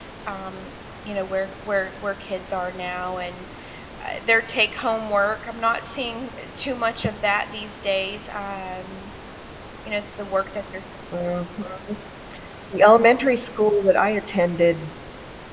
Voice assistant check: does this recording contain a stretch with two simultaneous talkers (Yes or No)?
No